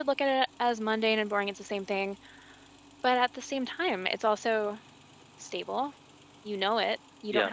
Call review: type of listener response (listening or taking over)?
listening